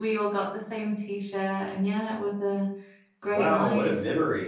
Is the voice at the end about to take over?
Yes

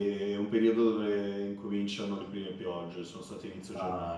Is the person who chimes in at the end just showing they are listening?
No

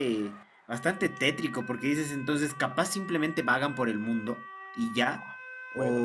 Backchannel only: No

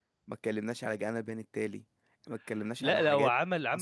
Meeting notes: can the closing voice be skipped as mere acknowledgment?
No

